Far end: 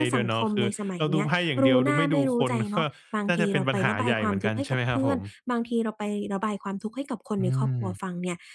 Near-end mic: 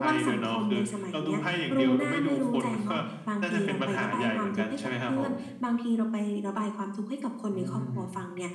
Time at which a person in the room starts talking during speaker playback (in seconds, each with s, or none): none